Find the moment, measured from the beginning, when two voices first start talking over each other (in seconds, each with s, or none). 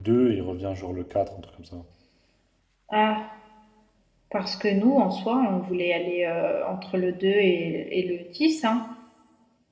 none